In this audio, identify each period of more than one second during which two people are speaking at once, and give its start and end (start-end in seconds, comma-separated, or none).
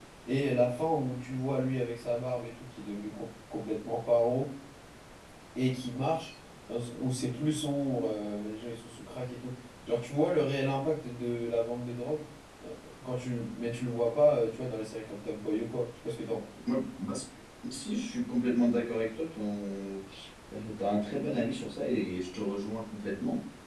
none